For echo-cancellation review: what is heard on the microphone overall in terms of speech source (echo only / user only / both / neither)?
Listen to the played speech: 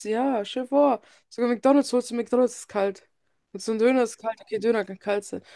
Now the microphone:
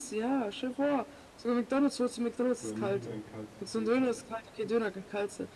both